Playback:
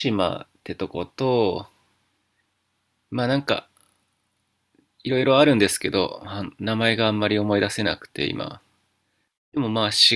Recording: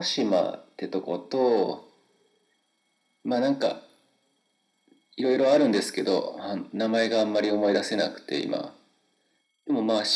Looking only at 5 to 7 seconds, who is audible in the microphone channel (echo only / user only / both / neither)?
echo only